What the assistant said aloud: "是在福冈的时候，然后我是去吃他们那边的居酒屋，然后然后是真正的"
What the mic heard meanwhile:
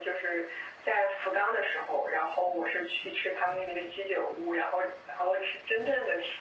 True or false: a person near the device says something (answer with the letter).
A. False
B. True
A